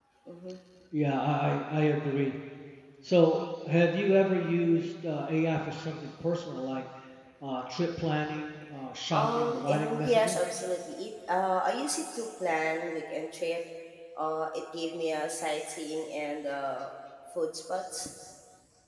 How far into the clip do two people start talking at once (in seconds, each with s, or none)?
9.1 s